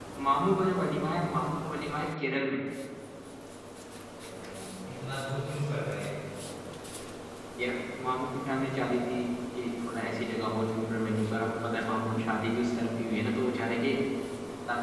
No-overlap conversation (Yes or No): Yes